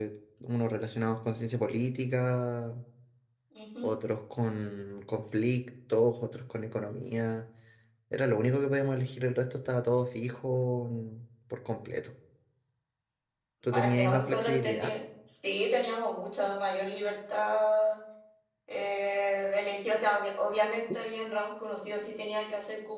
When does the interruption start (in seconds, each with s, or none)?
13.7 s